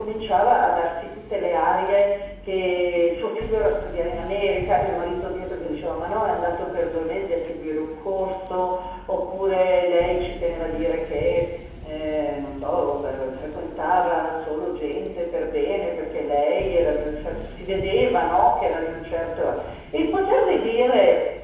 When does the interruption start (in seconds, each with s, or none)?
none